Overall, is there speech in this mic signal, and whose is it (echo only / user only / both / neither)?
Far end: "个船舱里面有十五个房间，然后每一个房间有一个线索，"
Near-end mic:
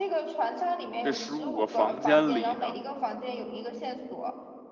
both